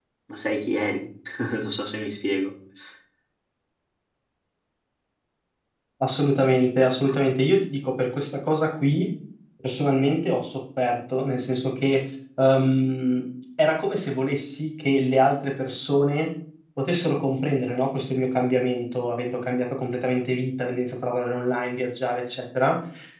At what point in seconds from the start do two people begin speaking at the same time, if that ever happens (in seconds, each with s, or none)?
none